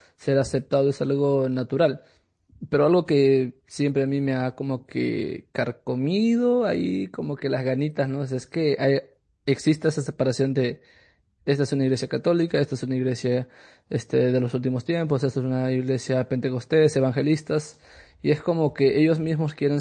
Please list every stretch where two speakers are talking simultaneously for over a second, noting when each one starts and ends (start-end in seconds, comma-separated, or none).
none